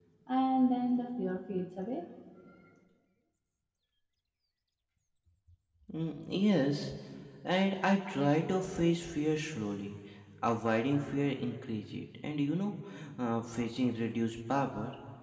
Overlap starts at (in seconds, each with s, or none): none